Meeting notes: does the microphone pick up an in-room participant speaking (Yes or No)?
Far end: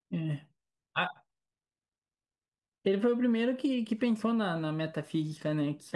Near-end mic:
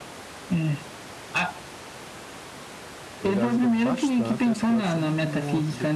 Yes